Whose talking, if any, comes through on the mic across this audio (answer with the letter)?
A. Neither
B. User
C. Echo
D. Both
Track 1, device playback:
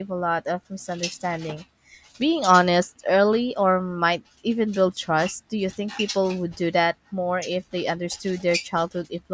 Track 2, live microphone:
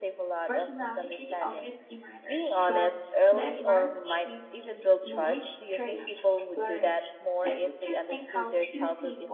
D